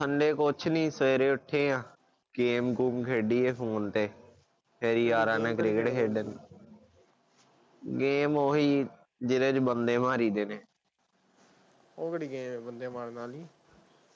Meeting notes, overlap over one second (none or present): present